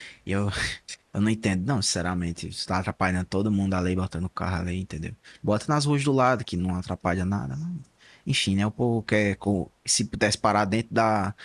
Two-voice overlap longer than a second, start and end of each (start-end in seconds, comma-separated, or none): none